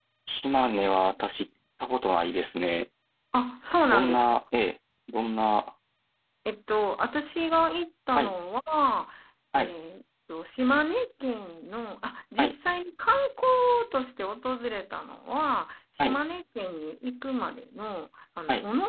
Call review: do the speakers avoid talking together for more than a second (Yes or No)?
Yes